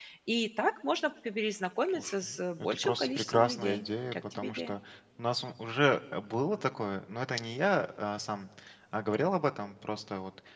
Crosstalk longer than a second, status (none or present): present